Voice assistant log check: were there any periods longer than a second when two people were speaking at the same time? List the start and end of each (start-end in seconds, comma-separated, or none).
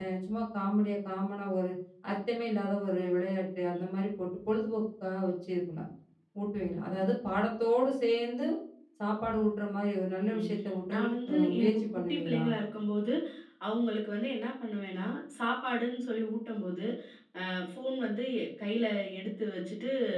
10.9-12.4